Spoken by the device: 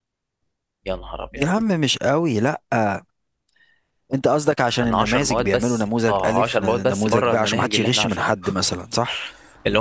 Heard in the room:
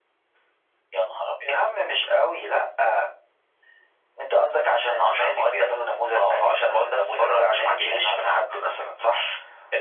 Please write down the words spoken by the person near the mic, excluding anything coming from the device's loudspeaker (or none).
none